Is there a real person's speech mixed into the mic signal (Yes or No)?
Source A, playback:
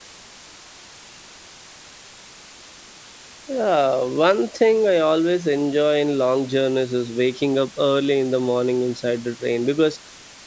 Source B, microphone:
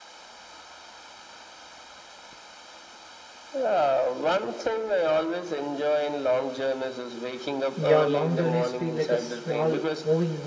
Yes